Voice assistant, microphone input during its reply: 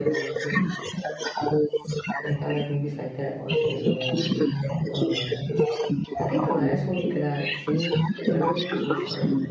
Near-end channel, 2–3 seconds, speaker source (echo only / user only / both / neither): both